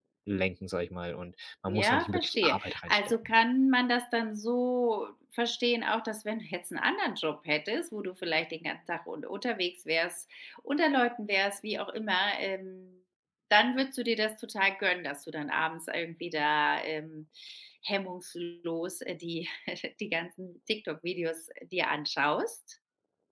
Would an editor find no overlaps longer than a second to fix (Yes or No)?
No